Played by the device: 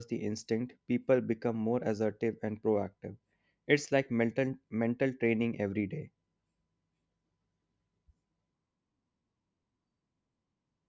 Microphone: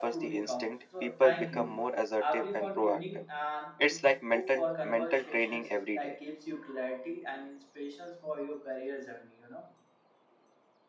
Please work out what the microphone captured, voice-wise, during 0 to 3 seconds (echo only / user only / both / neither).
both